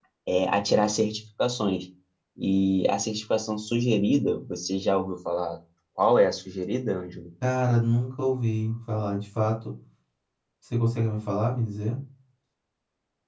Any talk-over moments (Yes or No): No